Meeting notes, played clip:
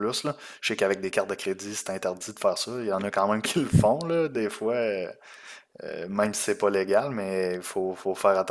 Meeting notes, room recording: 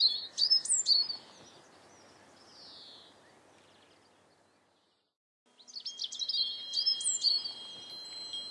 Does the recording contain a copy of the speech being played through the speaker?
No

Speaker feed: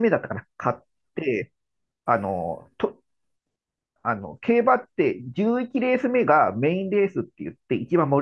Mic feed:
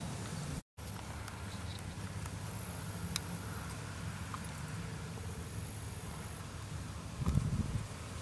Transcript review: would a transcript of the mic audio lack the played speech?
Yes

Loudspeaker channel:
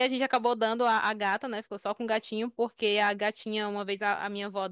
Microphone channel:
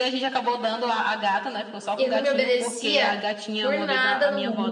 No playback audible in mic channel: No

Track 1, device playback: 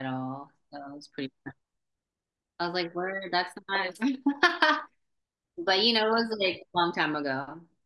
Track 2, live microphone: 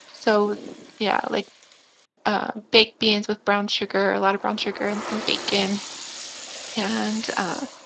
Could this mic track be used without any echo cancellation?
Yes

